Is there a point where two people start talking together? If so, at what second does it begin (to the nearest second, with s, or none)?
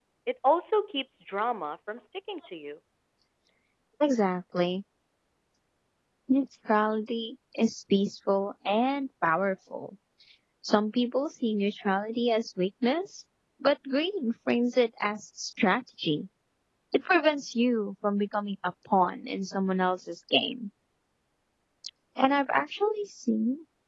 none